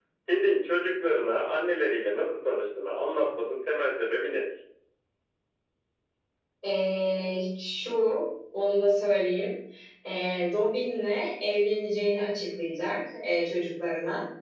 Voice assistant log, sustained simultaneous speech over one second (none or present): none